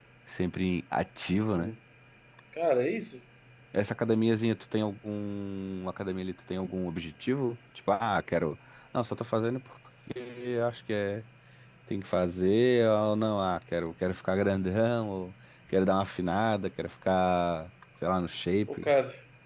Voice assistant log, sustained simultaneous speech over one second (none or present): none